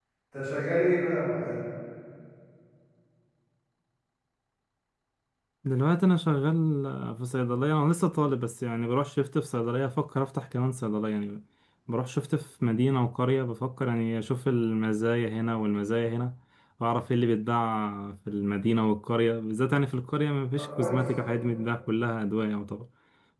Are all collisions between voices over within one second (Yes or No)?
Yes